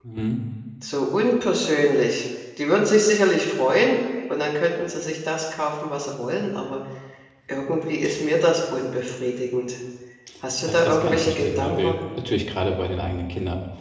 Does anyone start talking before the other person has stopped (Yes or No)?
Yes